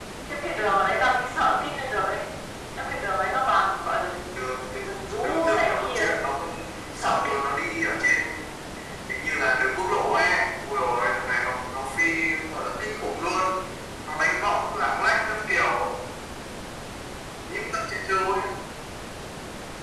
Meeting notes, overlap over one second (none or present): present